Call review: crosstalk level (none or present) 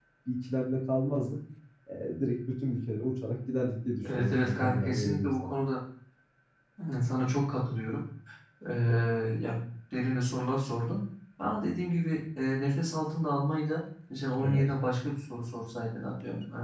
present